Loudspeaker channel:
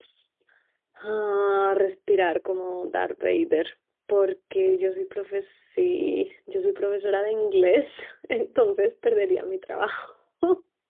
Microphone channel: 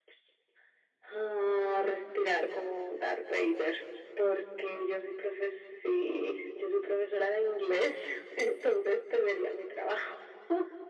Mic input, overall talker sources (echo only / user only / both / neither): echo only